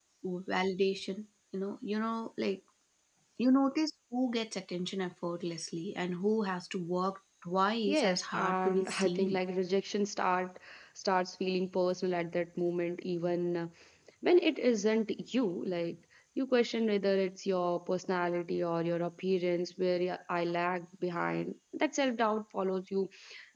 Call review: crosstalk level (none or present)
present